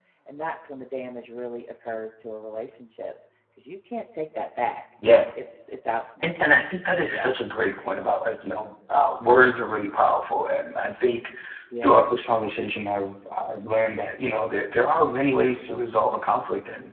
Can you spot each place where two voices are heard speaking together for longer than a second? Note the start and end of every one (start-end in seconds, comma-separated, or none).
none